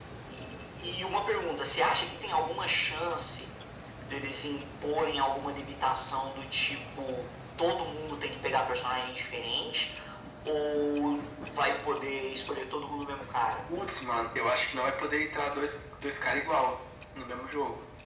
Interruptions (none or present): none